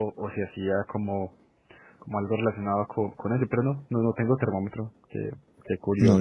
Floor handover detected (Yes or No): Yes